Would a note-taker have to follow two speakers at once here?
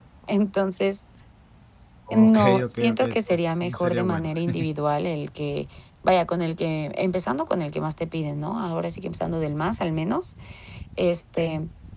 Yes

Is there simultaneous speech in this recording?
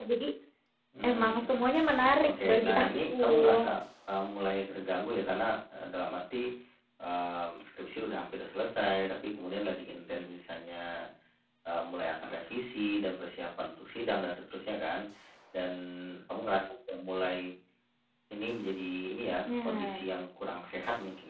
Yes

